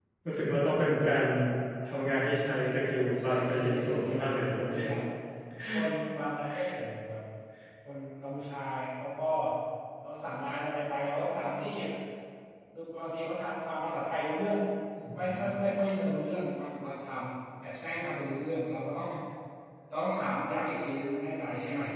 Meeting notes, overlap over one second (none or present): present